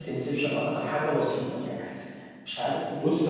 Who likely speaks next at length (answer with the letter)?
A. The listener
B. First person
A